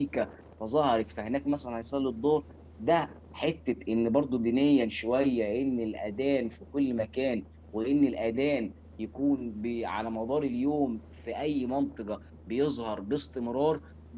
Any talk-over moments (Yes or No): No